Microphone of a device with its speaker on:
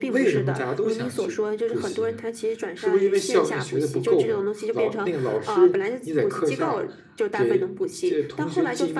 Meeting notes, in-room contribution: present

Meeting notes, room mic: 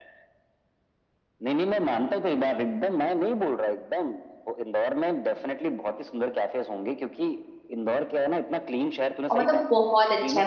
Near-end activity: present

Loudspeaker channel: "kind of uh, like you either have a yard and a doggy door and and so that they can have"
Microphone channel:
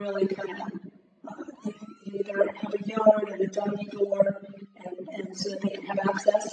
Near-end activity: none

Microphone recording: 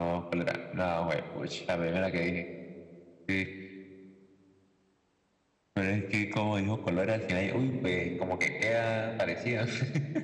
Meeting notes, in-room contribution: none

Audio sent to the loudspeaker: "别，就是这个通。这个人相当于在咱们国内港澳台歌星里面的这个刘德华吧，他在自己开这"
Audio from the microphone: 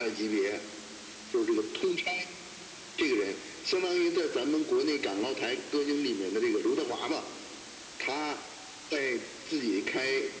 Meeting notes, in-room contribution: none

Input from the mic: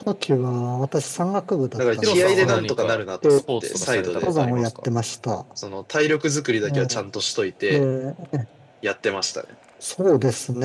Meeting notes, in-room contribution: present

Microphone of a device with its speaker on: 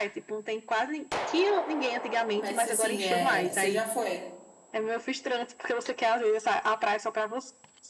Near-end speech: present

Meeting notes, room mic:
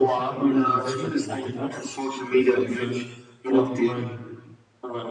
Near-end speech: present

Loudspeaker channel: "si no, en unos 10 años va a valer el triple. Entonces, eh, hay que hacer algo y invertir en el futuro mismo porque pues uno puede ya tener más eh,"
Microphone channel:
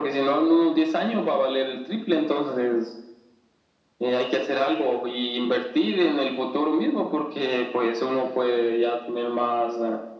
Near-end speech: none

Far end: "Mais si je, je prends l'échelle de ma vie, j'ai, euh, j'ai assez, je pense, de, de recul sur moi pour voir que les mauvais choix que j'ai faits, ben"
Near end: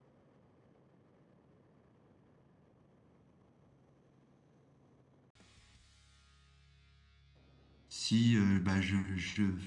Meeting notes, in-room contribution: present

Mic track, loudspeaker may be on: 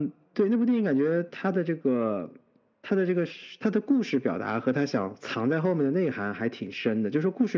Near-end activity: none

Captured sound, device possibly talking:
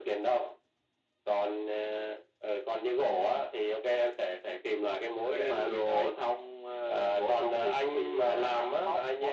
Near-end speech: none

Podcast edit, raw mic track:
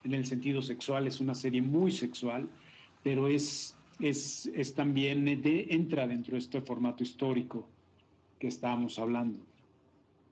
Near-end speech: none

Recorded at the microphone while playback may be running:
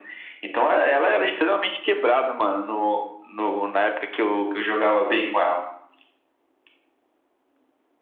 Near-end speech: none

